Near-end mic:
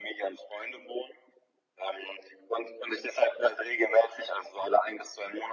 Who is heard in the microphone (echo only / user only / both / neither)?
echo only